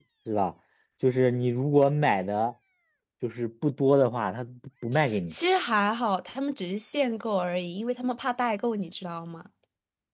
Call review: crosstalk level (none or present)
none